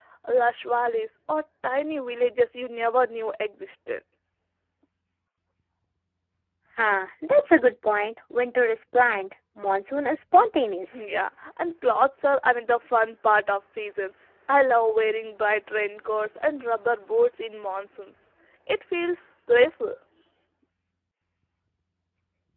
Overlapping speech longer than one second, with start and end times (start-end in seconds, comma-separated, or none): none